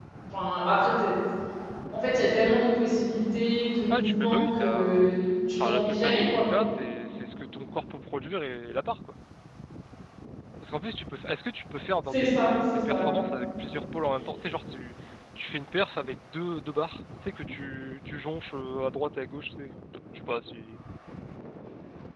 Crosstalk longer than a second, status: present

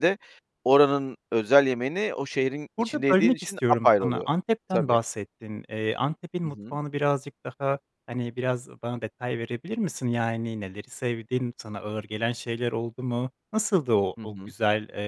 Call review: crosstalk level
present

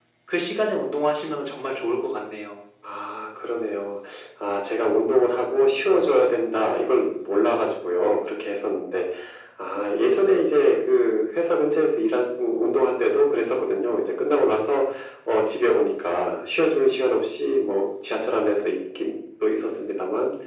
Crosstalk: none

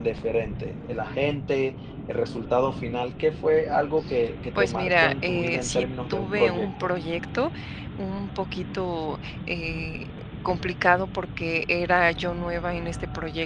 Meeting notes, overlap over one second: present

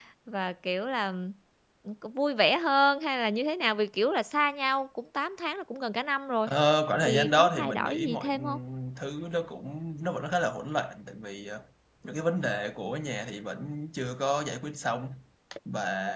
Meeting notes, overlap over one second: present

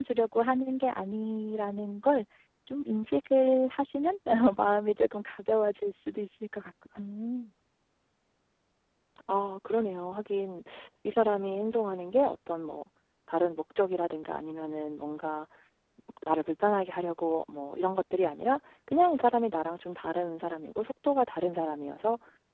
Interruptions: none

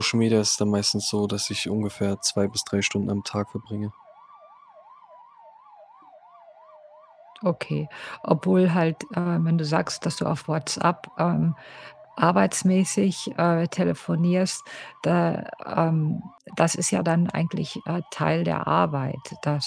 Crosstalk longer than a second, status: none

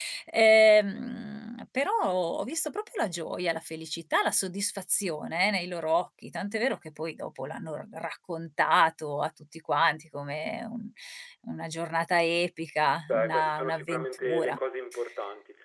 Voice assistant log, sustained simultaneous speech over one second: present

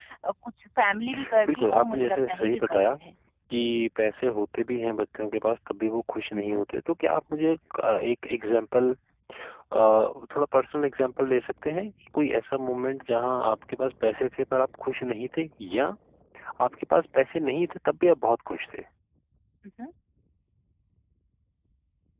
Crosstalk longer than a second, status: present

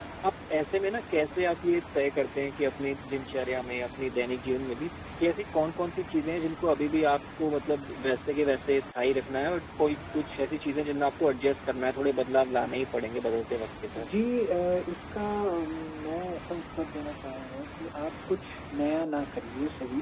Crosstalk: none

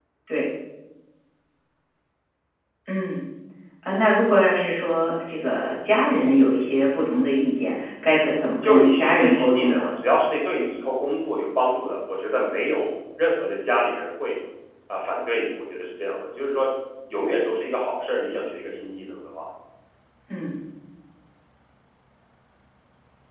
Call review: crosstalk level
present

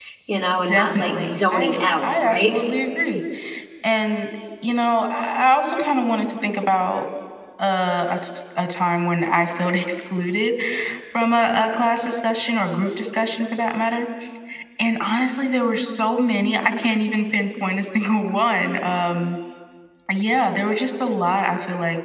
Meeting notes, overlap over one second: present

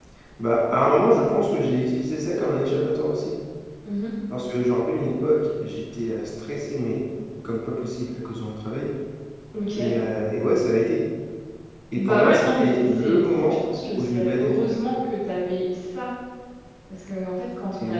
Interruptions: present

